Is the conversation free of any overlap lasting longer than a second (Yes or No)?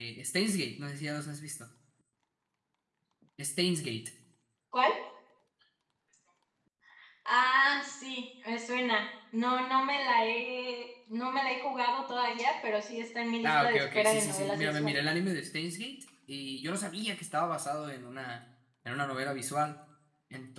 No